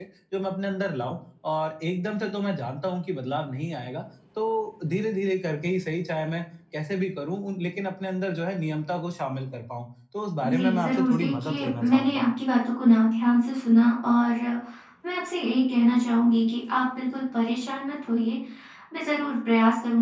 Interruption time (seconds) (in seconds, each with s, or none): 10.4 s